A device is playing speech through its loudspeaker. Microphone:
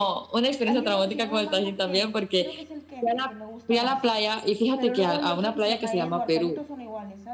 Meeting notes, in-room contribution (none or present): present